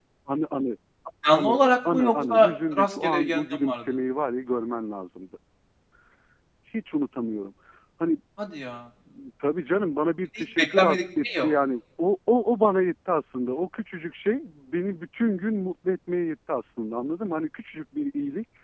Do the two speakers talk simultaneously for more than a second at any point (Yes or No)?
Yes